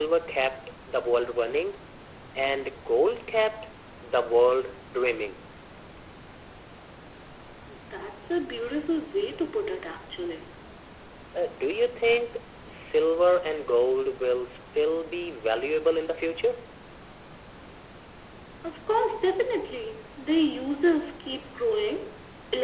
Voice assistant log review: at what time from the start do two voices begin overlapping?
none

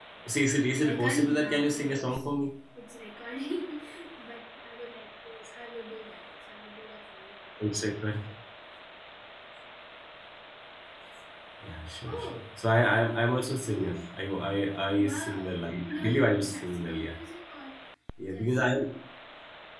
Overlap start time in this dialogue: 0.8 s

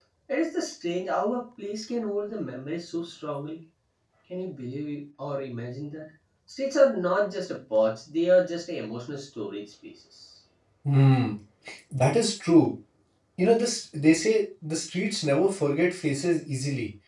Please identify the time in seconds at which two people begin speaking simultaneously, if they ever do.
none

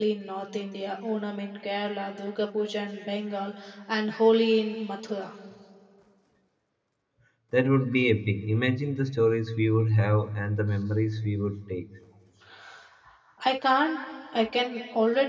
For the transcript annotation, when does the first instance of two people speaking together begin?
none

